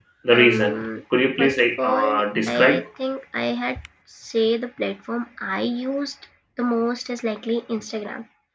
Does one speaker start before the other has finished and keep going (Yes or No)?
Yes